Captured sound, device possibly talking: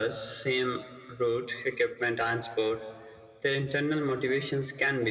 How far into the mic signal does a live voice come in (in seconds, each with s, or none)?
none